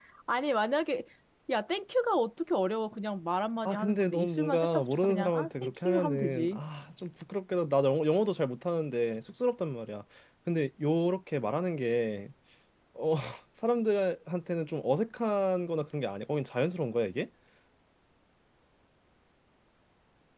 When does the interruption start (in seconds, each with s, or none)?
3.6 s